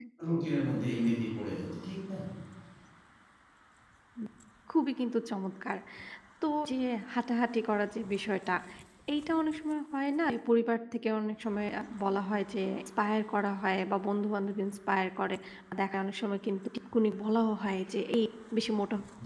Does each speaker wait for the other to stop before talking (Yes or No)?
Yes